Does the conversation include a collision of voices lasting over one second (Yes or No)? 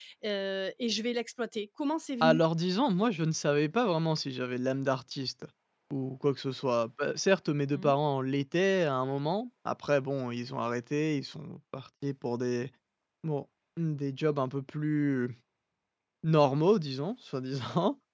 No